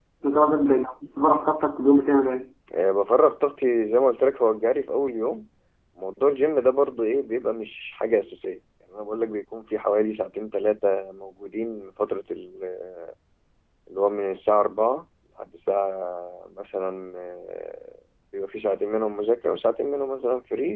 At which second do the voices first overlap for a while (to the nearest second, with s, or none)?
none